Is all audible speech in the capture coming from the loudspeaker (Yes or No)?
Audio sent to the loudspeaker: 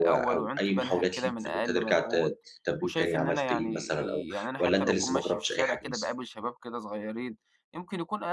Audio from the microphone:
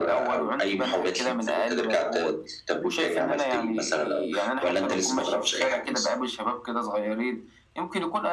Yes